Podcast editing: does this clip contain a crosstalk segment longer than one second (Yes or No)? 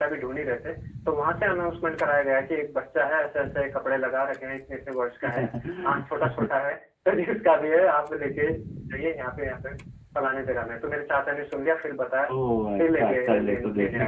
Yes